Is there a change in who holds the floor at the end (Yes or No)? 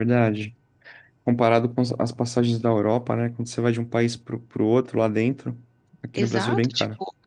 Yes